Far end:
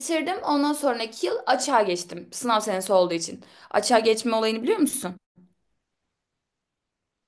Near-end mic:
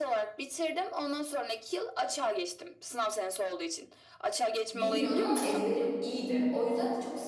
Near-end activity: present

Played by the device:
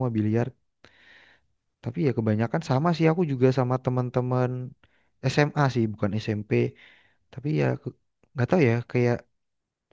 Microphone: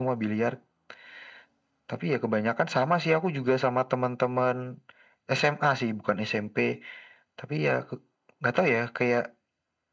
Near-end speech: none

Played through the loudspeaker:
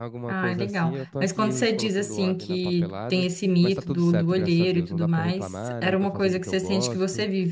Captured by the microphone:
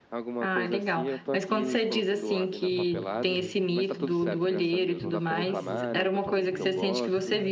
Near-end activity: present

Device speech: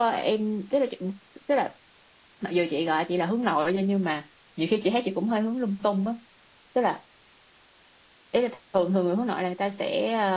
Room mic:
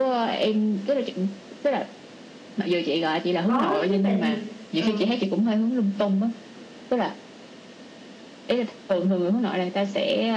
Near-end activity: present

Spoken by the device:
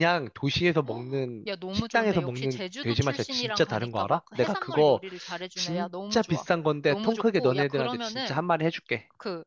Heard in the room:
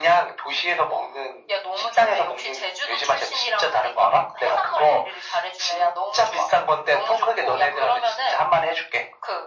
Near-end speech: none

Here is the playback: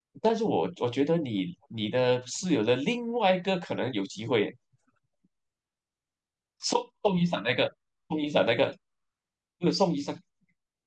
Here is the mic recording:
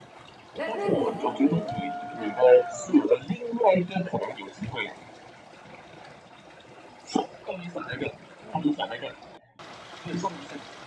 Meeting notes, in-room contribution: present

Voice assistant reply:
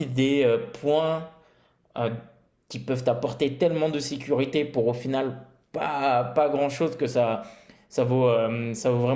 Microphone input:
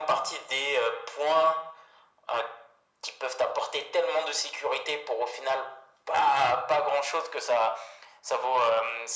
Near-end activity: none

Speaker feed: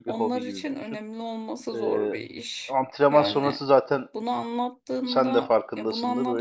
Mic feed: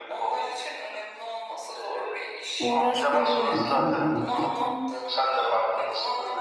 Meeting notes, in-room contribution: present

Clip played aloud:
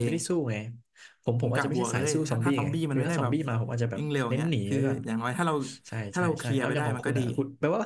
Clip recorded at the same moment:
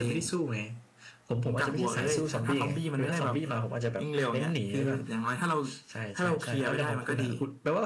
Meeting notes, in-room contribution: none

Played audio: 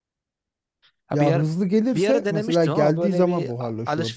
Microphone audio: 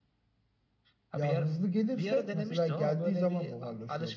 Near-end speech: none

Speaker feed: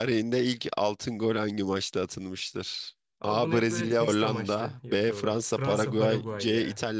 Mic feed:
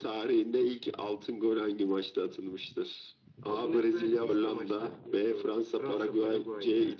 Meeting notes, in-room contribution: none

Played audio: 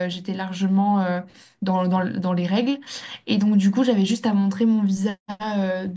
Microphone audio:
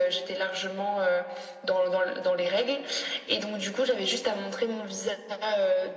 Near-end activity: none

